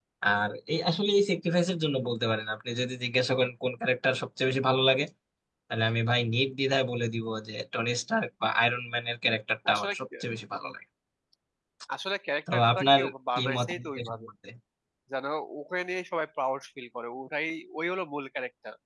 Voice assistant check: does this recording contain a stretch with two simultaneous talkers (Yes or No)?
Yes